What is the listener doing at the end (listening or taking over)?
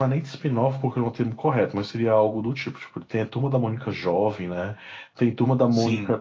listening